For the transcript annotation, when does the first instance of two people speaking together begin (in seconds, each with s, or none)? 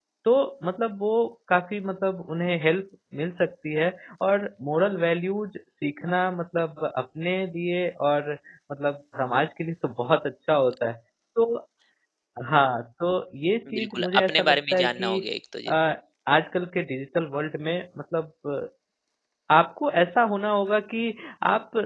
13.7 s